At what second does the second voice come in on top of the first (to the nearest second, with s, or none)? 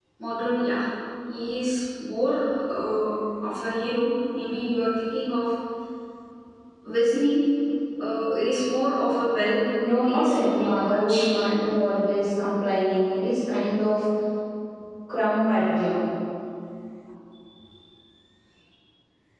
10 s